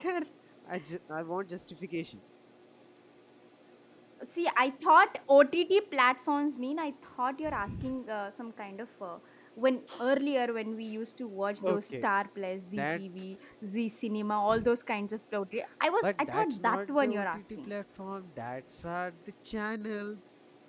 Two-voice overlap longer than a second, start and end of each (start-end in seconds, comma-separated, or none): 16.0-17.7